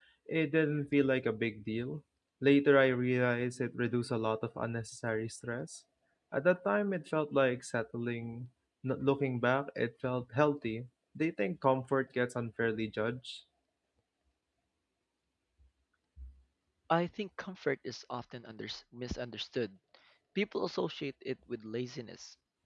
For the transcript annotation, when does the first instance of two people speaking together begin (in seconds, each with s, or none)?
none